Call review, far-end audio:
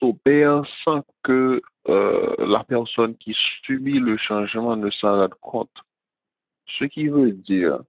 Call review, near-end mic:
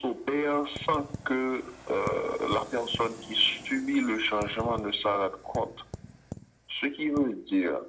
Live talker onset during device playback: none

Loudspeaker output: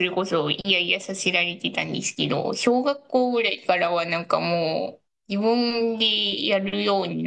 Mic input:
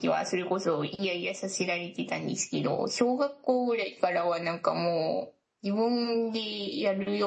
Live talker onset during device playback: none

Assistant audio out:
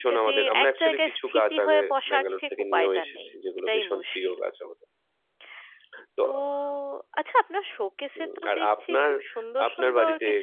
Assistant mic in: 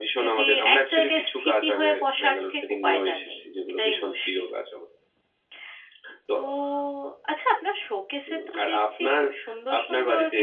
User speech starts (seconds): none

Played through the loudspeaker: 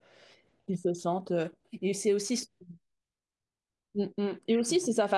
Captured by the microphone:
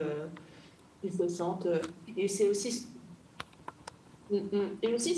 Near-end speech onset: none

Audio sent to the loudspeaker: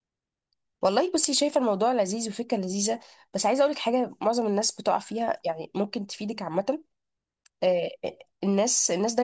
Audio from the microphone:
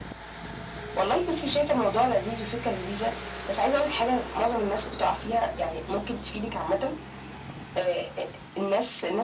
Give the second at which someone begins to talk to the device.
none

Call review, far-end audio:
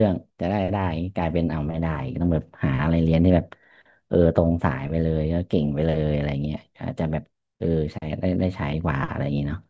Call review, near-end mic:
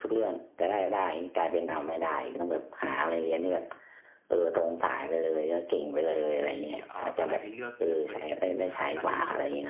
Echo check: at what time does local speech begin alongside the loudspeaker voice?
6.5 s

